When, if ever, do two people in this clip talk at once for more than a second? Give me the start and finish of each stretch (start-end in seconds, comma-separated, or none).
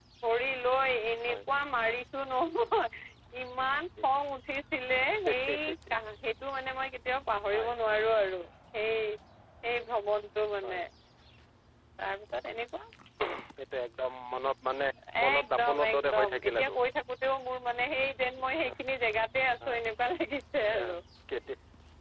15.2-16.7